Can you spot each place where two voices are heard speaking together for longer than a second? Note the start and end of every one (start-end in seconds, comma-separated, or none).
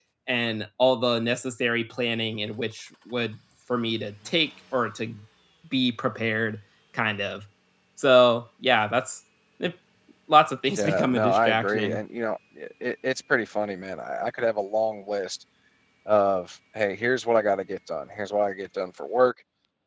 10.8-12.0